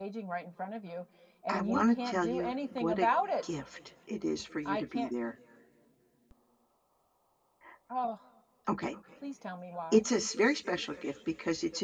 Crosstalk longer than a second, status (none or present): present